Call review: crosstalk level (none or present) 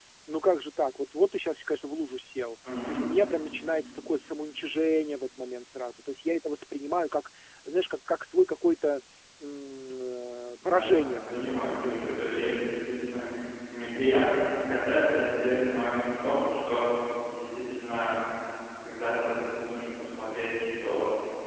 present